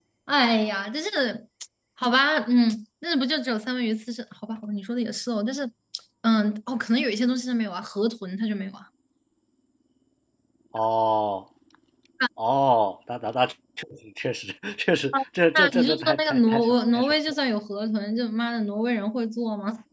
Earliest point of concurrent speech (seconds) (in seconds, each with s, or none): 15.6 s